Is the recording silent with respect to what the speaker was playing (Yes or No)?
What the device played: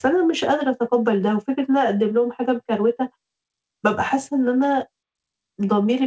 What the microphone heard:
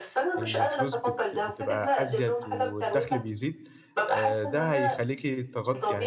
No